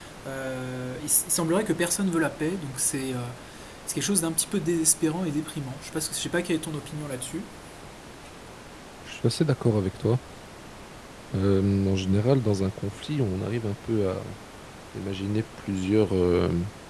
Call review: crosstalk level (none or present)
none